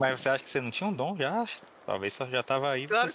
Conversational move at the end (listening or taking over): taking over